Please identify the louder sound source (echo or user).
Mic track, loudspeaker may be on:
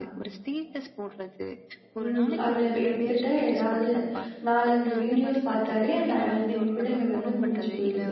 user